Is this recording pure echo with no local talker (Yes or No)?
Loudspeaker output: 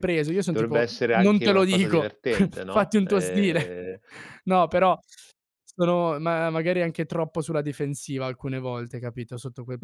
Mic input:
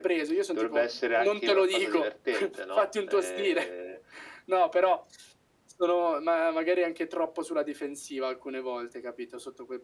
Yes